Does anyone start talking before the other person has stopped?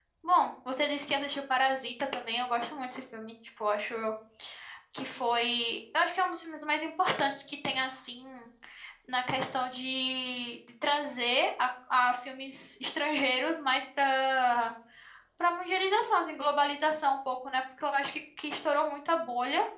No

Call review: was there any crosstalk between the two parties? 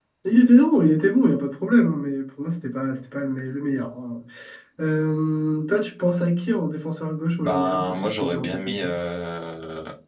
Yes, from 7.4 s

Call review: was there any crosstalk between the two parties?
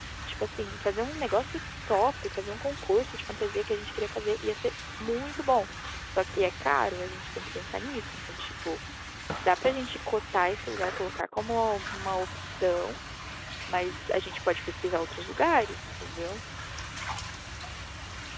No

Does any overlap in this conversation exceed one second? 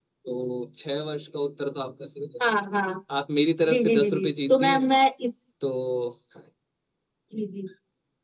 Yes, from 3.7 s

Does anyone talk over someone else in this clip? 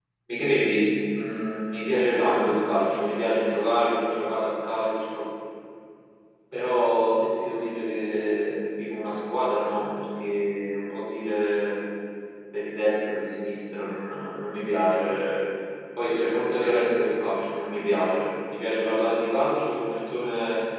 No

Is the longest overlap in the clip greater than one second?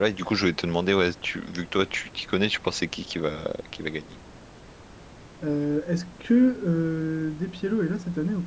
No

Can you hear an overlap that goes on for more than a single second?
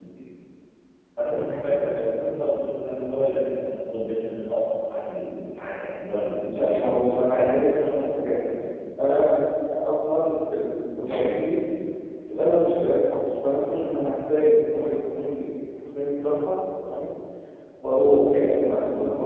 Yes, from 6.5 s

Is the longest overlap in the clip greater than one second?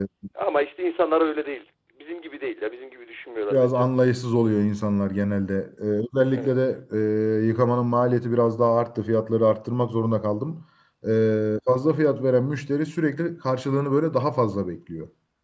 No

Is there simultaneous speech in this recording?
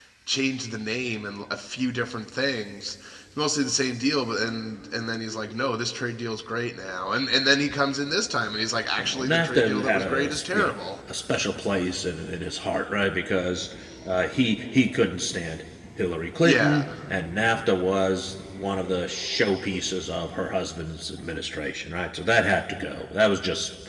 Yes, from 9.0 s

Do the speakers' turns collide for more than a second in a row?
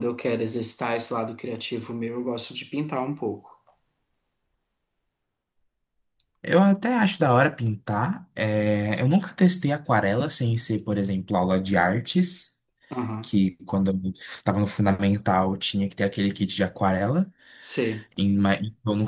No

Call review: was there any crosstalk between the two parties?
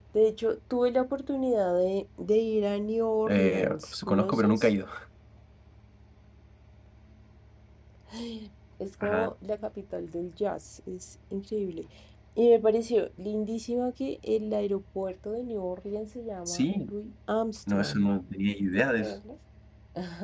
Yes, from 3.3 s

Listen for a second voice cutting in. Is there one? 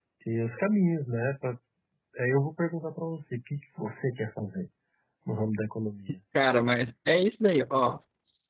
No

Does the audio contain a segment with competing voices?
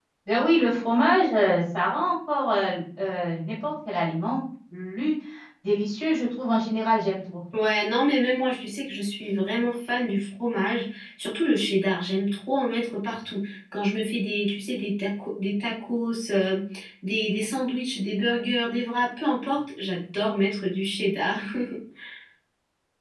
No

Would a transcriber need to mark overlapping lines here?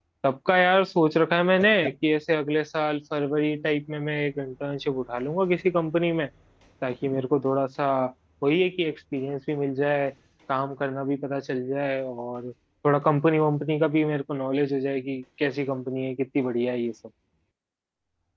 No

